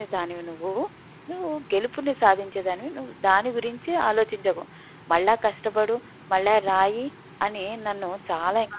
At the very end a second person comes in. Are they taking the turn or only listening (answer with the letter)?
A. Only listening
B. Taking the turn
B